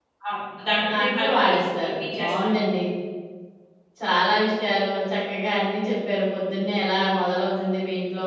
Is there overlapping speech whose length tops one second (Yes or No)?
Yes